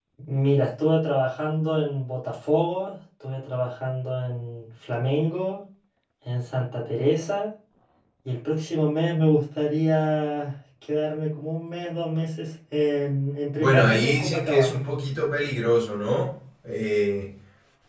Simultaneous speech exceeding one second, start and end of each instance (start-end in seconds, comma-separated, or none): 13.6-14.8